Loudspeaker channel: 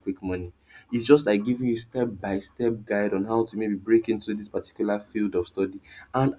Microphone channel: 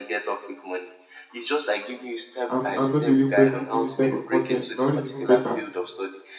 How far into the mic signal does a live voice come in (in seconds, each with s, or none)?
2.5 s